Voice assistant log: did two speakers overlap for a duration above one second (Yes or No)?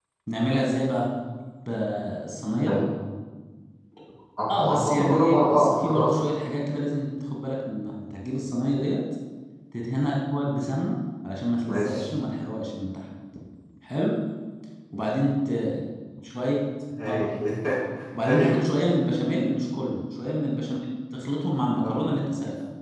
Yes